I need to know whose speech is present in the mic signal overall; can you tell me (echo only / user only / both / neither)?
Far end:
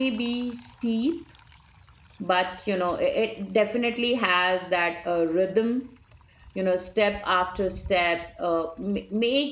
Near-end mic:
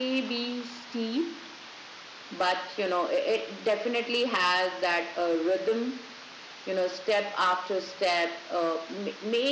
echo only